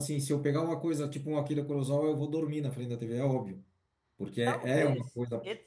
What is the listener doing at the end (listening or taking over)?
taking over